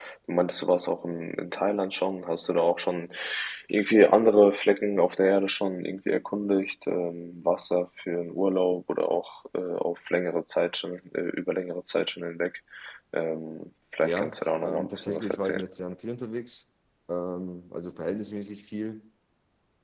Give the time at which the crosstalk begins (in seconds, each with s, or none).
14.0 s